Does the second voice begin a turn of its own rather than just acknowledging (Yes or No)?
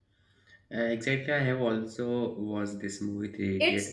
Yes